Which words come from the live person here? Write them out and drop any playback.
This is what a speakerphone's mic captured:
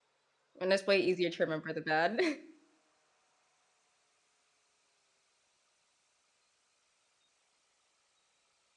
and it's way easier to remember the bad.

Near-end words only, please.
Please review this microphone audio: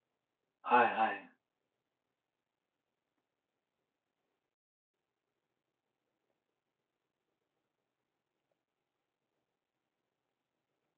はいはい。

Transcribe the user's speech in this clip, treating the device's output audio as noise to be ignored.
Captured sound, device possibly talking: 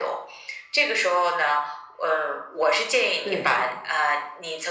对，

